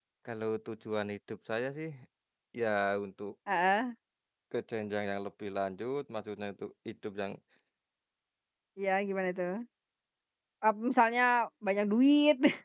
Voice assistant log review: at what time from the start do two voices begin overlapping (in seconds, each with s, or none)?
none